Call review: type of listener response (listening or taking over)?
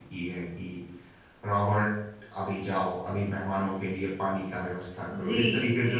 taking over